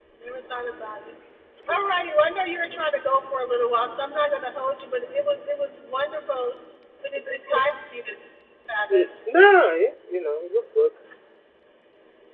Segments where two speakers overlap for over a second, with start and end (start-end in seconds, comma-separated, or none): none